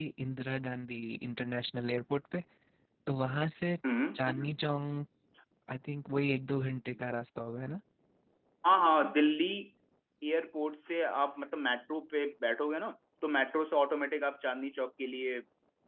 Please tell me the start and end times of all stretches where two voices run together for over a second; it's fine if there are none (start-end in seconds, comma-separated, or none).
none